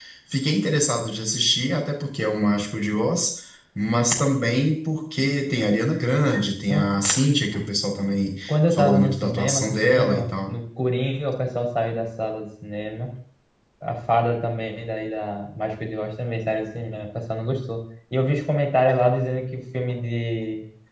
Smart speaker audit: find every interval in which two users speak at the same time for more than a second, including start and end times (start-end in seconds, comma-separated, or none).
8.5-10.6